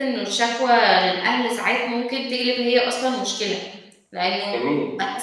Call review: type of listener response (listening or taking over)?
listening